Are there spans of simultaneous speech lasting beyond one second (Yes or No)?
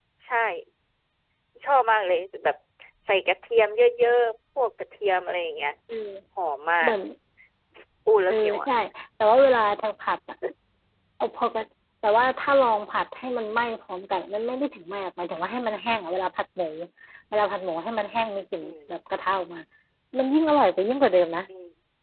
No